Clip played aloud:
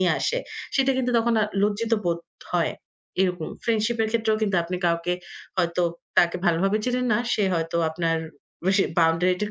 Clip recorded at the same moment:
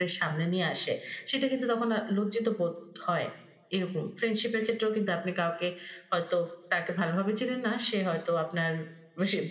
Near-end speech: none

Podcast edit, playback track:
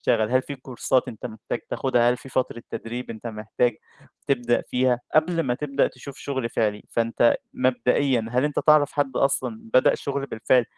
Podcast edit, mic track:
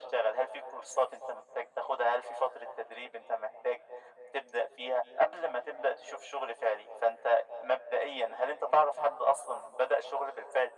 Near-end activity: none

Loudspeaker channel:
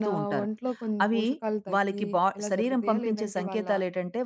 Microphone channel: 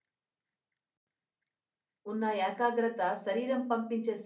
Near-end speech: present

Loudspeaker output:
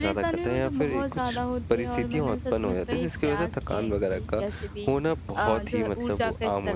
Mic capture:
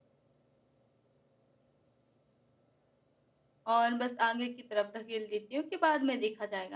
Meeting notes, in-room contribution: present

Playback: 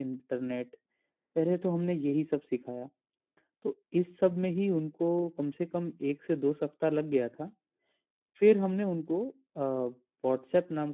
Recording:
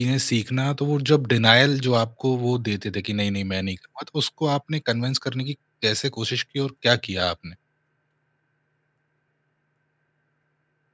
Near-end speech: present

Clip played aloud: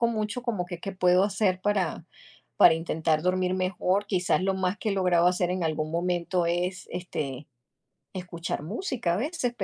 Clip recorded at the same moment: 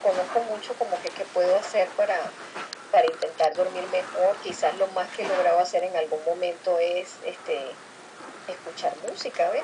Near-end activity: none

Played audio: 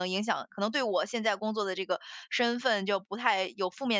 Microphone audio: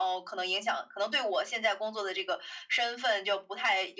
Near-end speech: none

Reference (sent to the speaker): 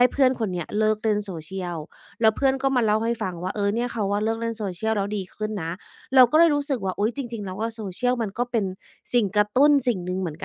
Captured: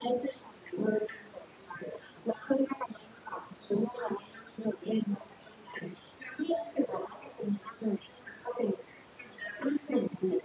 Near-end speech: none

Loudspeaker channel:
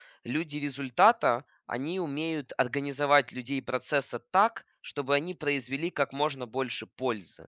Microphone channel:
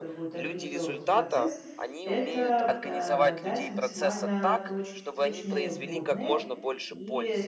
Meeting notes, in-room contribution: present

